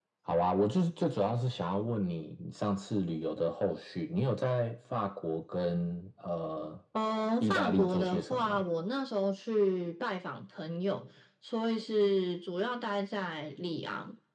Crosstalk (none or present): present